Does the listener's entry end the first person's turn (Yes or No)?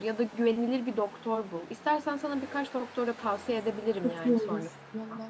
Yes